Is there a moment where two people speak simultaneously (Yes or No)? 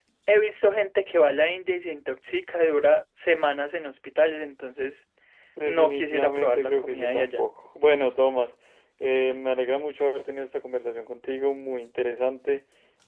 Yes